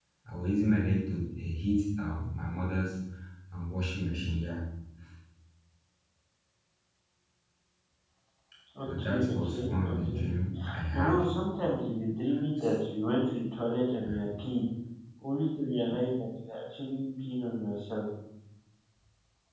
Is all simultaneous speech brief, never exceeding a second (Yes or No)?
No